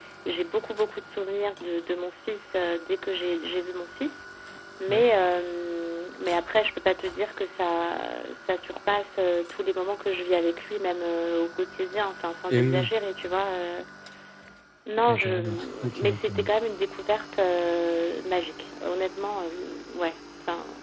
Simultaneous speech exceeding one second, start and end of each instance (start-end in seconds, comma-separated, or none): 15.1-16.4